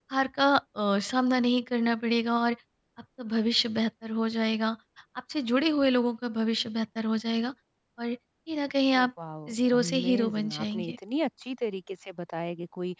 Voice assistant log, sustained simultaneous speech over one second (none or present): present